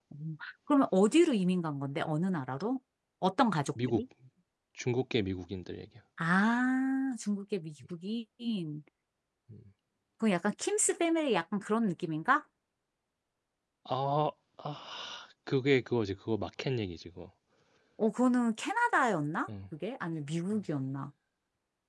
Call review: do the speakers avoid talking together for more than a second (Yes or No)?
Yes